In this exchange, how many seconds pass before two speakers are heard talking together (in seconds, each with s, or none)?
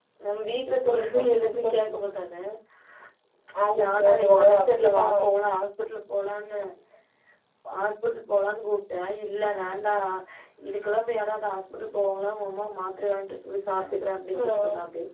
3.8 s